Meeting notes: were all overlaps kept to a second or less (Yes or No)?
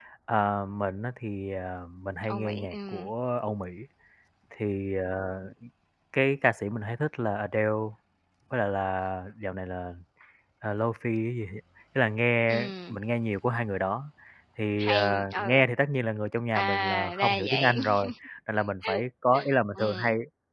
No